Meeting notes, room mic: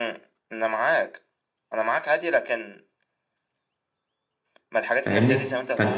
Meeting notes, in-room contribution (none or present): present